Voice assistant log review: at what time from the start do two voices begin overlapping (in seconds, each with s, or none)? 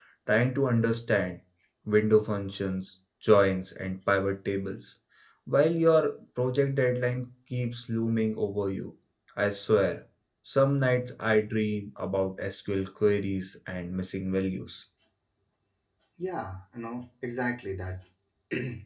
none